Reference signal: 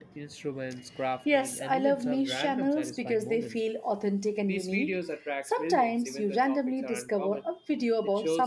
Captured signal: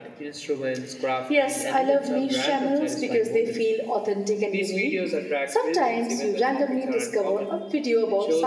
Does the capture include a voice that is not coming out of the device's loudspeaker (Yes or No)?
No